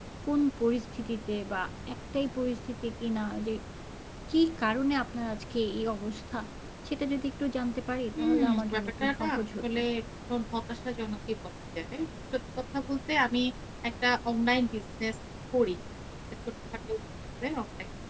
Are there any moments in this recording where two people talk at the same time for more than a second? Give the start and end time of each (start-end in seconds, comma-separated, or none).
8.2-9.8